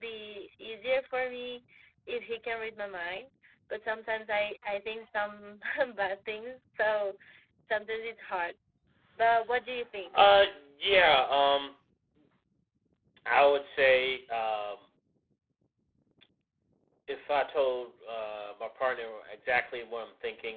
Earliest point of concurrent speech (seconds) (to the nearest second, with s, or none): none